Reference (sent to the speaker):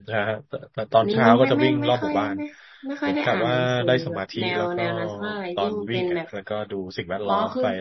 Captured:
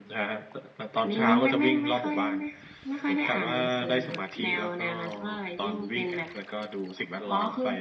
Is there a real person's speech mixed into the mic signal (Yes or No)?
No